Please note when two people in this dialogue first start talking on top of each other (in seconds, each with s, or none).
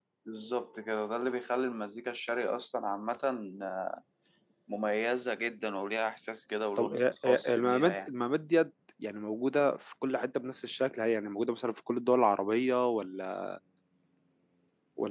6.8 s